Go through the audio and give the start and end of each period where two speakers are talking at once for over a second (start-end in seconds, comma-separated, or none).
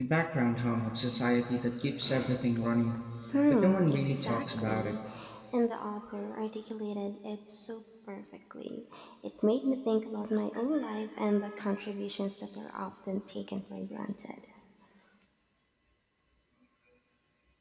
3.5-4.9